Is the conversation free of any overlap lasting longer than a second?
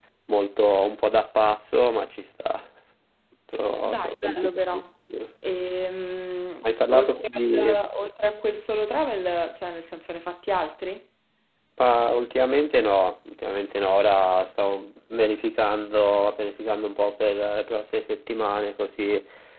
No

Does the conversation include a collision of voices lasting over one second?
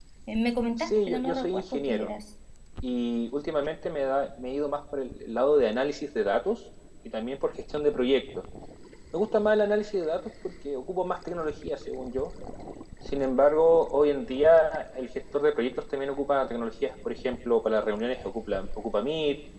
Yes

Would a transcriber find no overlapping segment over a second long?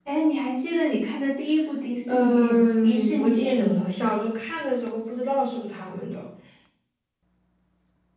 No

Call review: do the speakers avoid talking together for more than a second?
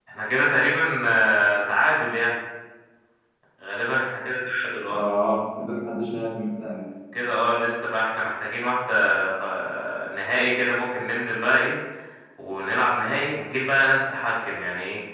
Yes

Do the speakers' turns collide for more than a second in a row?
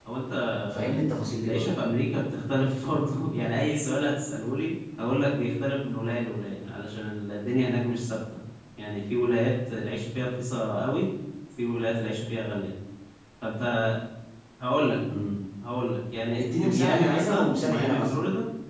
Yes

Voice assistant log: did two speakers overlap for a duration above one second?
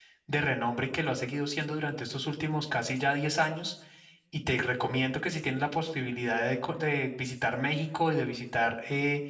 No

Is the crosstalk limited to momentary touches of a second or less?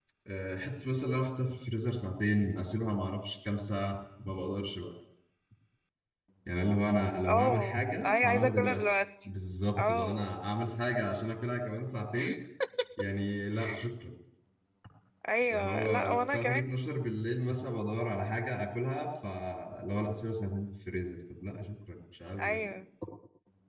No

